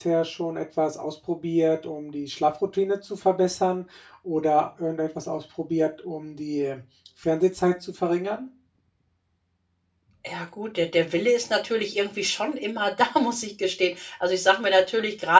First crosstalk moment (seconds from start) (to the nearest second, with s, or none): none